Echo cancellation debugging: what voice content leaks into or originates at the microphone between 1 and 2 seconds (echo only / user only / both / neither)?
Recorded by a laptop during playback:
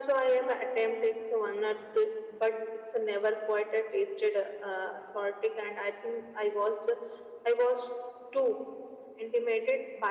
echo only